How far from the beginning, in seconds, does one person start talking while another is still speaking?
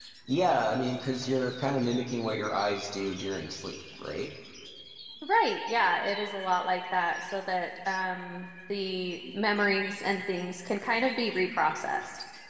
none

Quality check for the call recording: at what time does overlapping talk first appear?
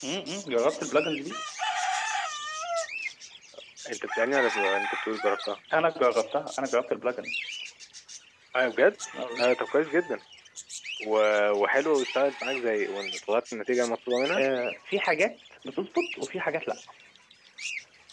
none

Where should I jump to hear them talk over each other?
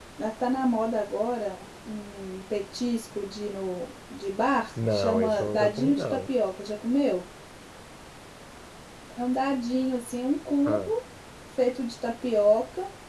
4.8 s

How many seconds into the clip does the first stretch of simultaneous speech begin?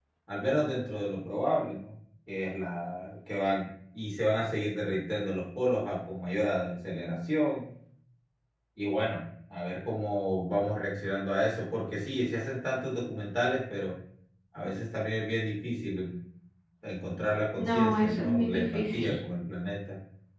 17.6 s

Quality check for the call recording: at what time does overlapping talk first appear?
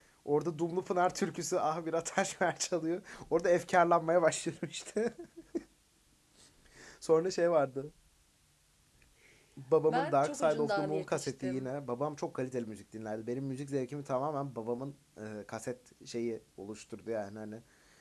9.9 s

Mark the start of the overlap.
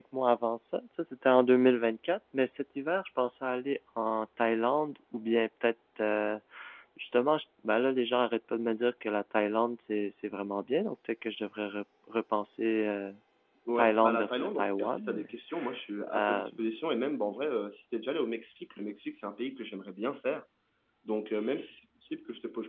13.8 s

